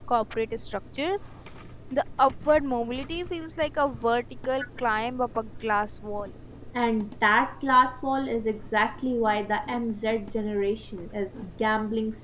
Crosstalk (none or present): none